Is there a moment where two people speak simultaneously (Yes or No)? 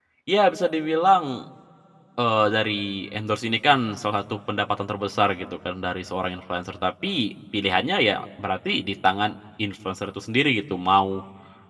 No